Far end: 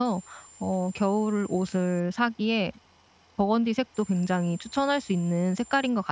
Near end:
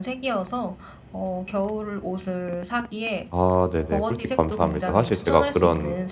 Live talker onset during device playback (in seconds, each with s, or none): 3.3 s